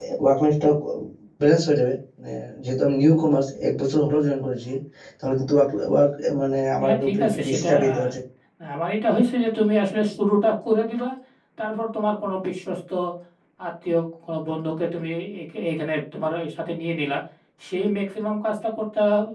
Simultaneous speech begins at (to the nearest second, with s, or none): 7 s